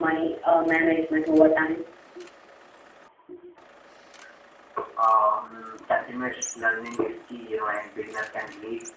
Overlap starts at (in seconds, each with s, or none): none